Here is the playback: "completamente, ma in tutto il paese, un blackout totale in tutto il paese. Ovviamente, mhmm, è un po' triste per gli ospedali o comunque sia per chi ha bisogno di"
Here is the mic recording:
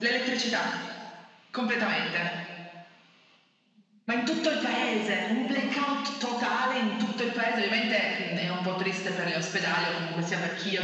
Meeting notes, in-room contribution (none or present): none